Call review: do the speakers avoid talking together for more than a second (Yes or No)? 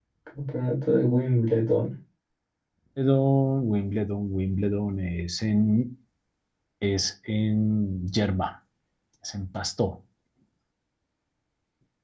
Yes